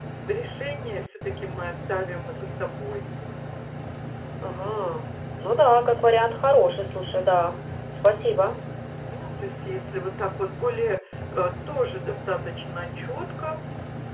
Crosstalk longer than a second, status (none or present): none